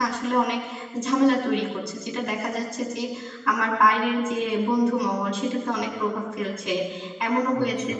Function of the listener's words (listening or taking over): listening